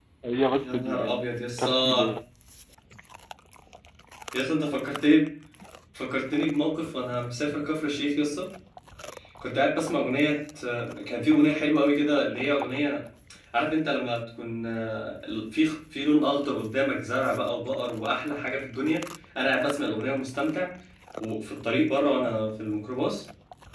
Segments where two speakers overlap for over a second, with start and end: 0.5-2.1

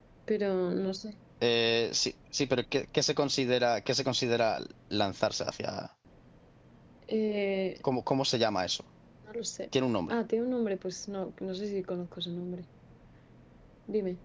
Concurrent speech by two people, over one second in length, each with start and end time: none

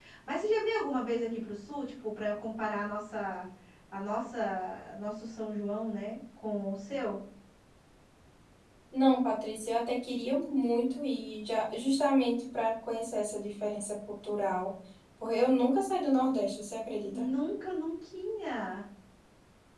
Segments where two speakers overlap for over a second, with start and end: none

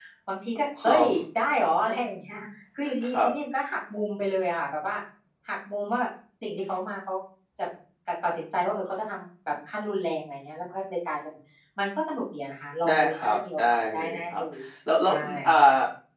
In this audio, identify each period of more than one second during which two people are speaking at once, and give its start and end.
12.9-14.4

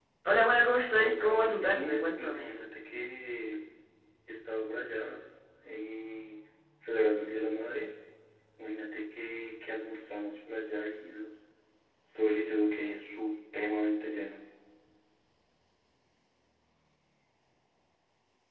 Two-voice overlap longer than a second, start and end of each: 1.0-2.5

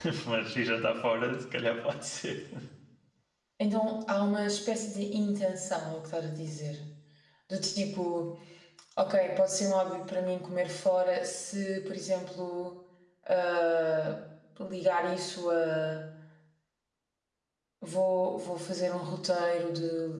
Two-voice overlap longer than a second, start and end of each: none

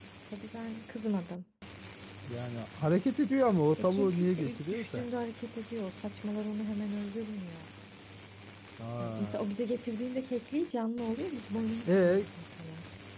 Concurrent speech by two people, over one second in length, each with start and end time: 3.8-5.1

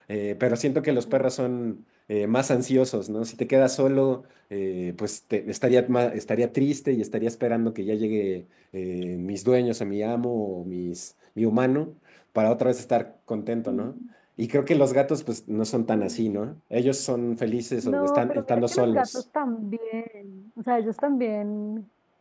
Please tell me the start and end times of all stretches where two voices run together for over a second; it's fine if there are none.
17.8-19.2

